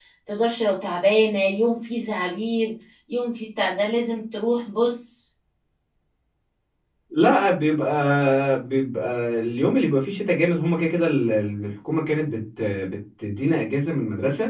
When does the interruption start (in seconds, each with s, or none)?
none